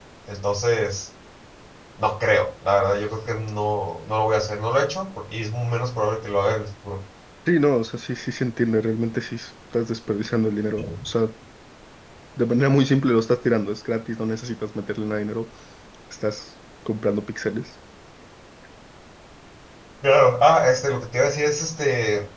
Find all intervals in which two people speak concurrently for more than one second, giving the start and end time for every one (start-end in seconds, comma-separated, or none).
none